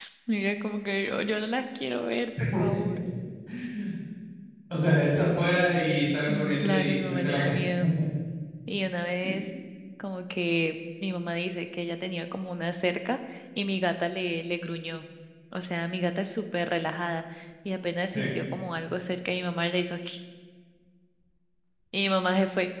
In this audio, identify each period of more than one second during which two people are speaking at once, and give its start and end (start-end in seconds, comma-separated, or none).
6.3-7.6